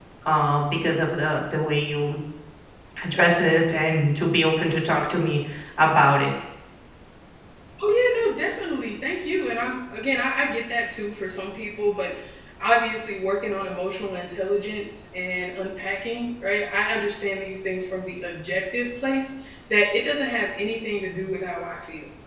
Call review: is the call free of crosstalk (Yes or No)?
Yes